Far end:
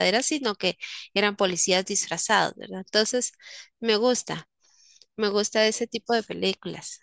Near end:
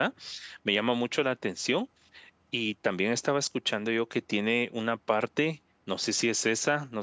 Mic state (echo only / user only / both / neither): user only